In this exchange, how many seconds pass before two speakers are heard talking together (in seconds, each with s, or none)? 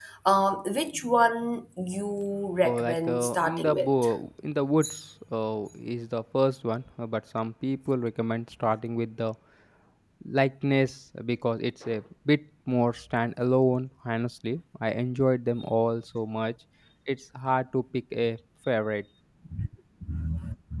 2.6 s